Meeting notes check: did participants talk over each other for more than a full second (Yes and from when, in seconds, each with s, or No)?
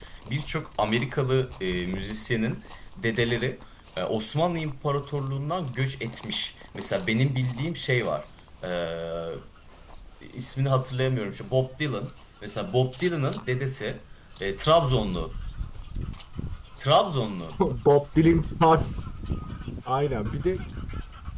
No